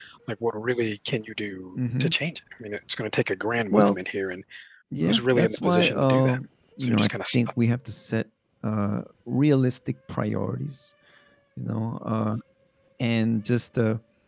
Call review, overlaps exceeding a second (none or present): present